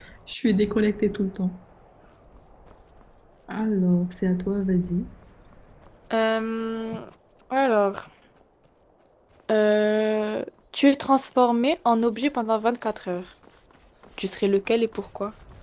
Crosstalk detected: No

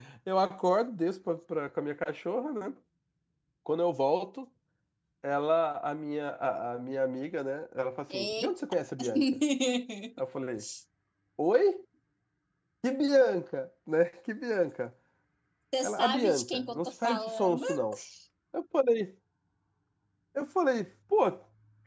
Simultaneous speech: Yes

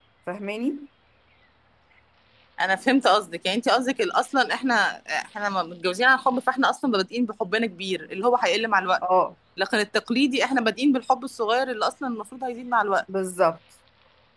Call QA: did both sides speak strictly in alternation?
Yes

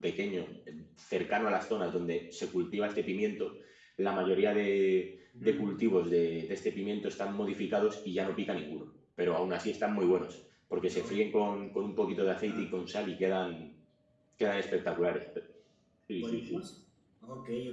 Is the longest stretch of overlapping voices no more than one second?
Yes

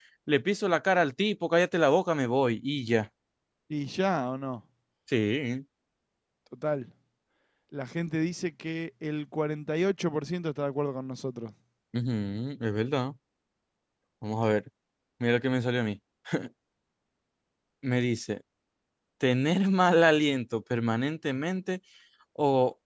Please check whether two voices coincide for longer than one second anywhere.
No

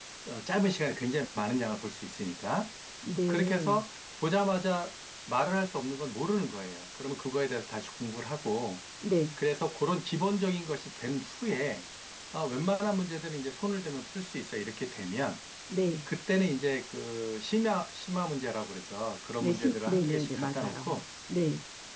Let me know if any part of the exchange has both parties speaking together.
Yes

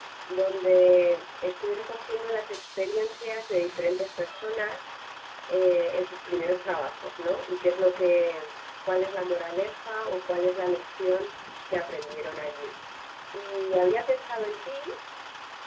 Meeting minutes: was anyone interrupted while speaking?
No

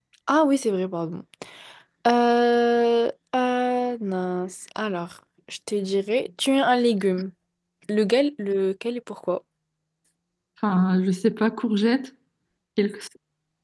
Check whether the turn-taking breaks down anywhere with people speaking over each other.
No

